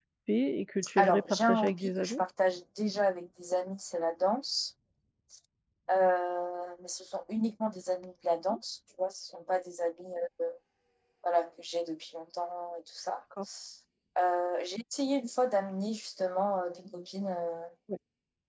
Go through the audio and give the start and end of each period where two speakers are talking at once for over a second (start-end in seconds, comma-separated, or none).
1.0-2.2